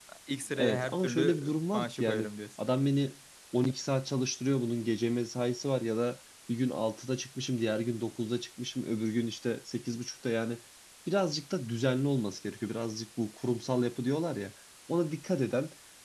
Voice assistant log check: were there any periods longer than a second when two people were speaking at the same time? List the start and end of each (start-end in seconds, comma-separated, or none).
0.6-2.3